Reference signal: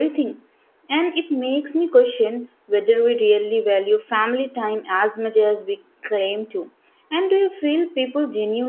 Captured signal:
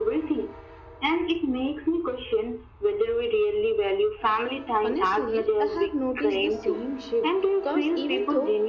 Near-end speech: present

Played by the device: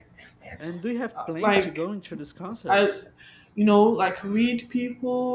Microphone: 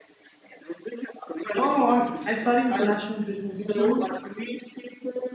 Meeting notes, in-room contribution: present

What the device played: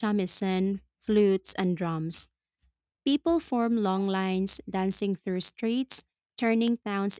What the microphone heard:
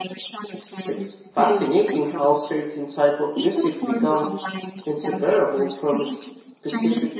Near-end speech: present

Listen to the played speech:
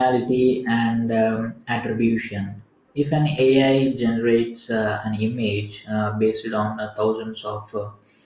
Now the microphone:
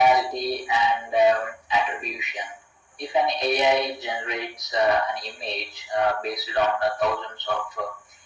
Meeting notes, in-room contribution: none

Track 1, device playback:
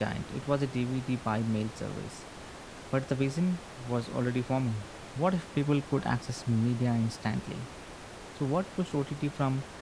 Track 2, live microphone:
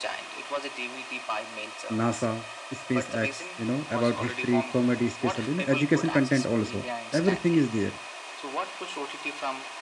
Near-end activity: present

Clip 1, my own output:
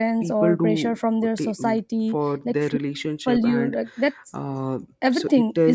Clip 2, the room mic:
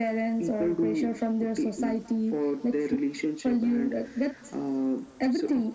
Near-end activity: none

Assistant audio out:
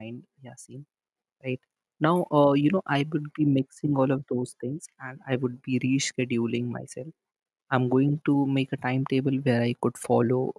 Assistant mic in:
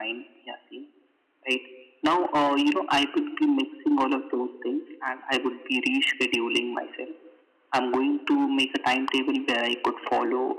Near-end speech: none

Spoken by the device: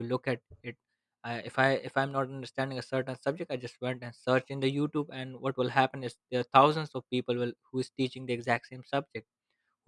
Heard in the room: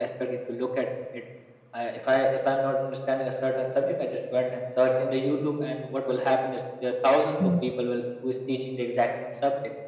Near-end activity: present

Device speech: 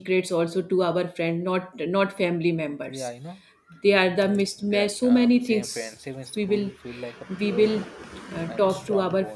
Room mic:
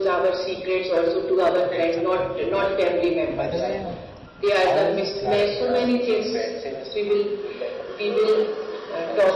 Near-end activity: present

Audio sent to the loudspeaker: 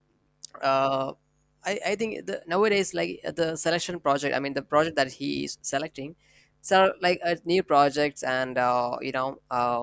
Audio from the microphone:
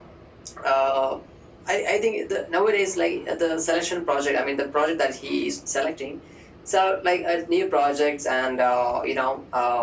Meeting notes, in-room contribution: none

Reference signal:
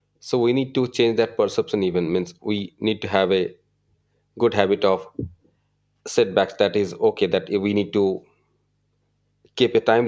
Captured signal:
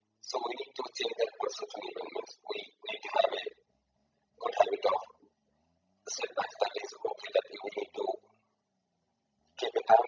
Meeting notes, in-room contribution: none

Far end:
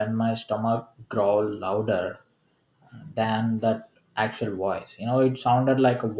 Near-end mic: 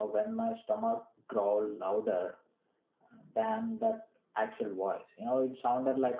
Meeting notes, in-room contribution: none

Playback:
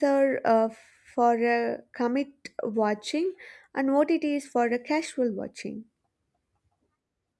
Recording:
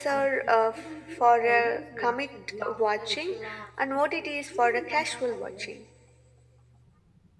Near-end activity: present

